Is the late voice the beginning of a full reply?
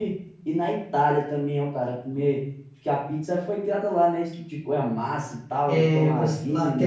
Yes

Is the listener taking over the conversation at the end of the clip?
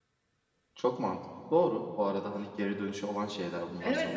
Yes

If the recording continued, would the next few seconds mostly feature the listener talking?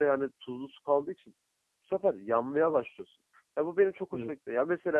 No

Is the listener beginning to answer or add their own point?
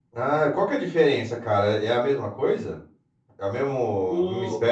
Yes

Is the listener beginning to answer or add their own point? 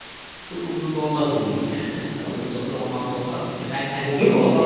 Yes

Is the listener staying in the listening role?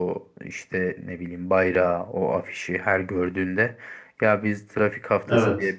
Yes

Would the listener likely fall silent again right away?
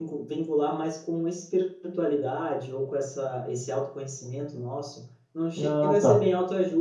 Yes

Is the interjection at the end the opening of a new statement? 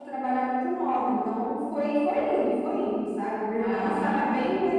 No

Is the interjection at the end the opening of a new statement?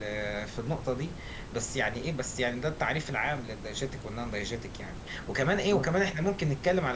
No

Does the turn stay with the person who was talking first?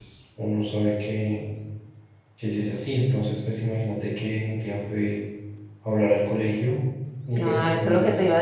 No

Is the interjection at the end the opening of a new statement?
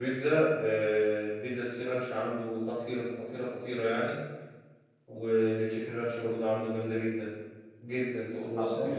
Yes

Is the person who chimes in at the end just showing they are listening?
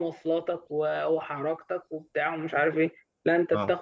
Yes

